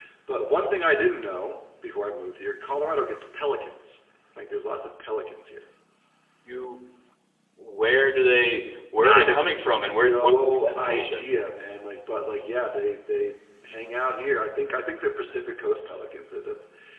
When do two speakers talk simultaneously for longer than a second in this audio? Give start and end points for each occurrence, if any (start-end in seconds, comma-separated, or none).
9.0-11.3